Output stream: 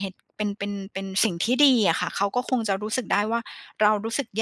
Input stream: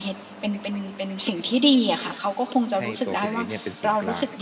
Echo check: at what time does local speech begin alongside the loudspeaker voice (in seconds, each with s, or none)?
2.8 s